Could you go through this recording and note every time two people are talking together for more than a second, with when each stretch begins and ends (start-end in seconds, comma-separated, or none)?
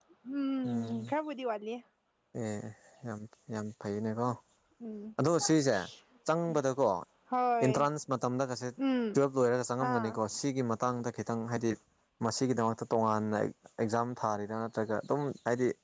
none